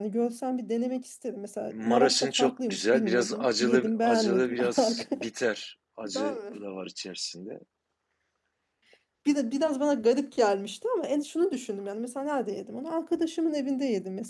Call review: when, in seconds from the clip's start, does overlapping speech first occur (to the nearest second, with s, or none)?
2 s